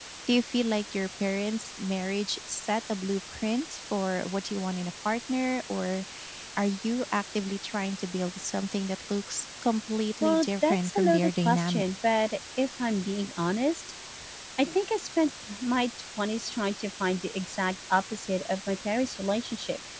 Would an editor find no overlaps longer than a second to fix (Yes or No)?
No